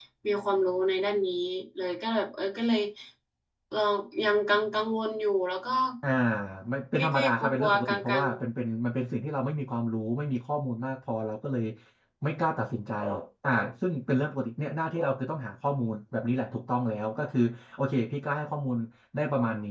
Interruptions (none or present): present